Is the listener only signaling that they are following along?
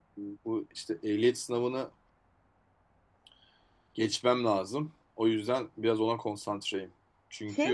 No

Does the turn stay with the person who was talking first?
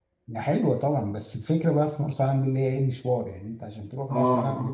No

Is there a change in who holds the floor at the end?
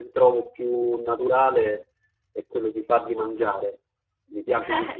Yes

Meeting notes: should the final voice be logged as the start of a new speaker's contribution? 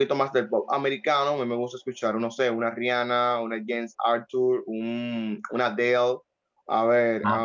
No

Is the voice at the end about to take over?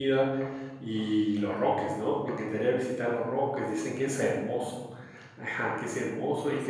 No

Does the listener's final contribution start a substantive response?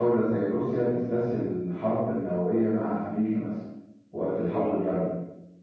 No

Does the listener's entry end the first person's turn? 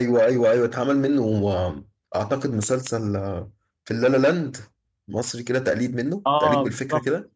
Yes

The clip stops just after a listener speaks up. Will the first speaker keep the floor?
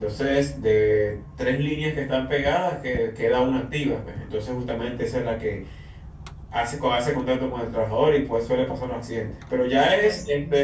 Yes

